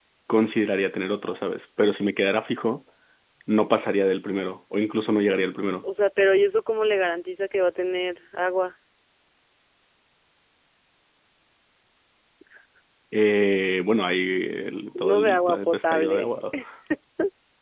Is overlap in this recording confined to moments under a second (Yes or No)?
No